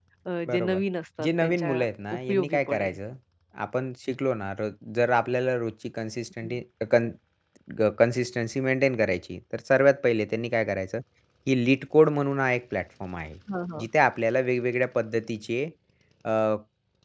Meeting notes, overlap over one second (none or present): present